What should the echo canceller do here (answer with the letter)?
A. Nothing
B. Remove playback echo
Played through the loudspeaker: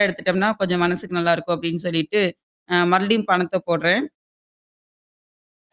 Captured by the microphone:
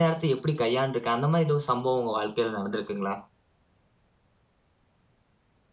A